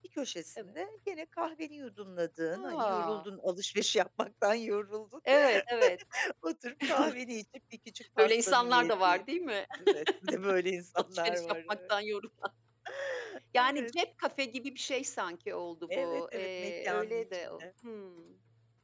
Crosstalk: present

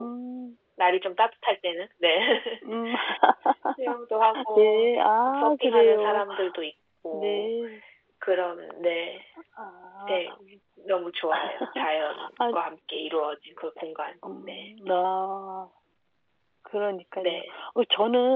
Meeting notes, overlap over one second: present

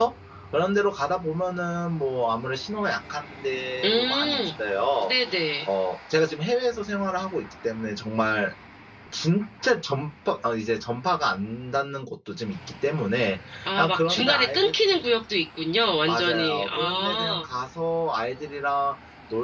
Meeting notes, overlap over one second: present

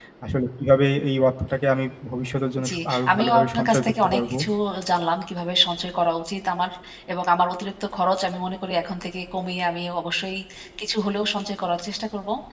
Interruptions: present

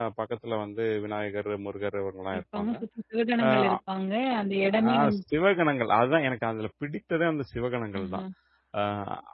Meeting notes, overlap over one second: none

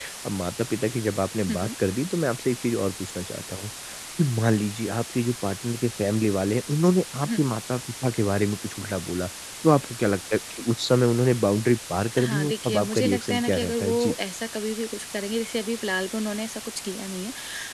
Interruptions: present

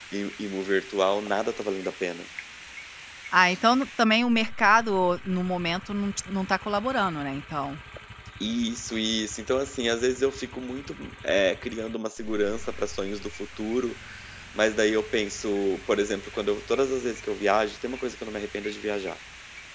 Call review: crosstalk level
none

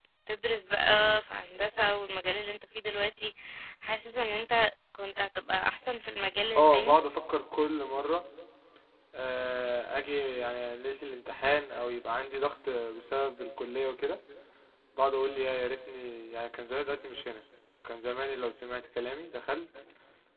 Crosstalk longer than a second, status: none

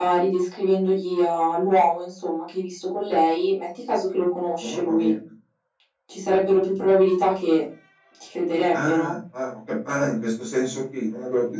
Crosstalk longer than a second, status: none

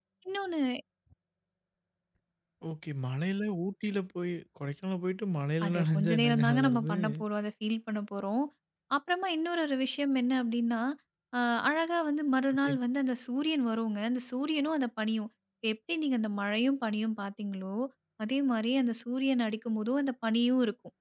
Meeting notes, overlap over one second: present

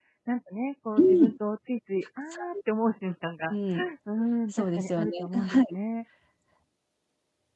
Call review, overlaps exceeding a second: present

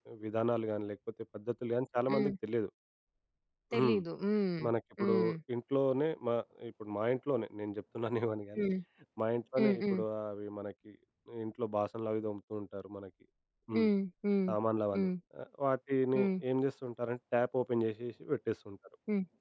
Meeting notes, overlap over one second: none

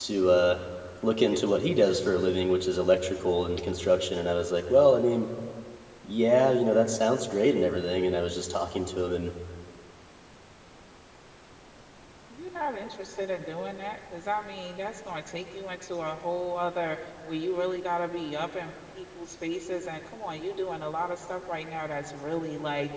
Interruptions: none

